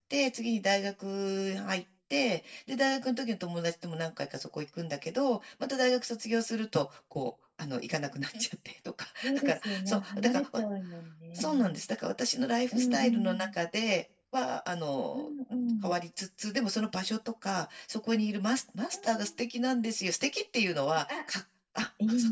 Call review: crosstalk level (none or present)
present